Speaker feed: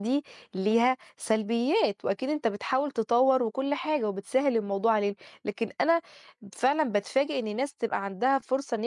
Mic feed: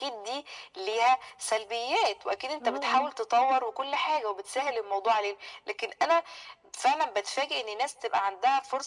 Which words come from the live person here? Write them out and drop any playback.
آه آه.

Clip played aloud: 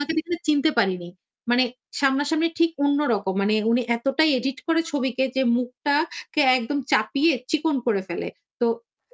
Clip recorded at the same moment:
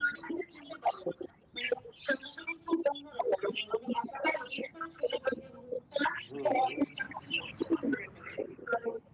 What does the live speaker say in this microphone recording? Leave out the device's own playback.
হু, হু।

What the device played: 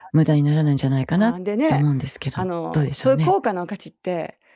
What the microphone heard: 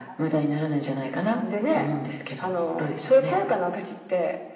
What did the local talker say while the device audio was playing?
none

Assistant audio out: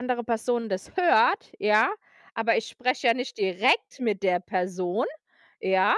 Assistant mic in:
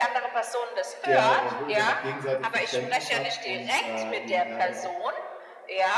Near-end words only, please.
der äh, wo ihr dann auch gegenseitig Verständnis habt und, äh, eben er dann auch

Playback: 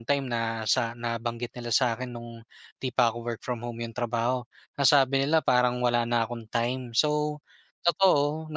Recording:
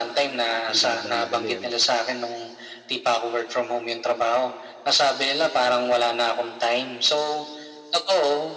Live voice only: Hindi ka nagmamadali, ano.

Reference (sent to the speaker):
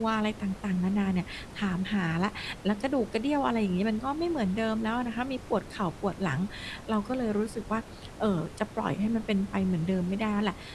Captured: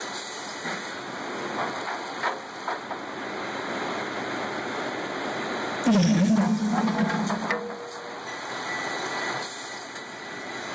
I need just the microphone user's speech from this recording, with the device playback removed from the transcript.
อือ

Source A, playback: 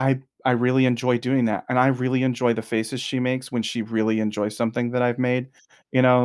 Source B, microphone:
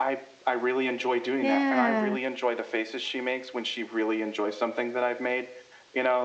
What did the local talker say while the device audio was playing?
Yeah.

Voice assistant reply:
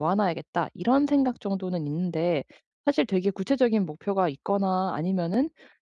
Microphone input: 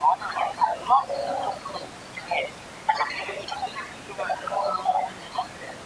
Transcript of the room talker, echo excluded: none

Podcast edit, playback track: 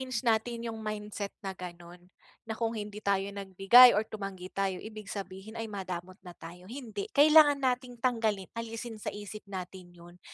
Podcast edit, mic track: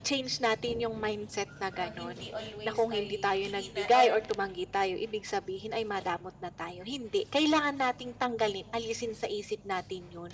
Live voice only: ah, hindi always ay hingi na or,

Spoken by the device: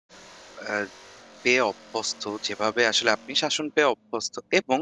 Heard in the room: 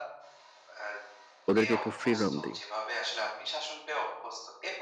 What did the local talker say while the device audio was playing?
ওদেরকে একটু freedom দেই,

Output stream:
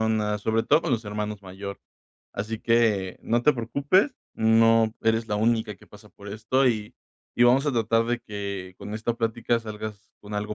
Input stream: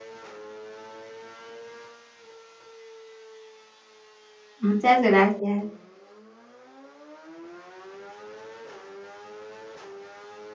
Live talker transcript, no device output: Muchas gracias.

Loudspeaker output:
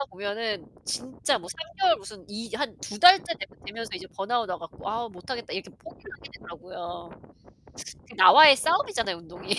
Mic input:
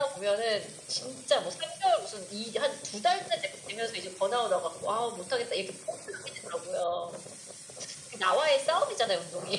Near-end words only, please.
none

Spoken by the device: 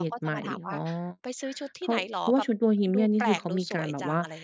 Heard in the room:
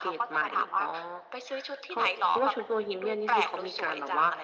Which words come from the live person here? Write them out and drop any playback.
none

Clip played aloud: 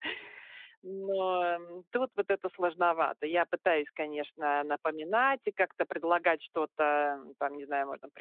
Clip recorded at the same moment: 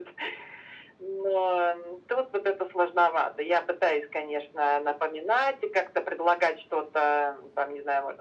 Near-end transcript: none

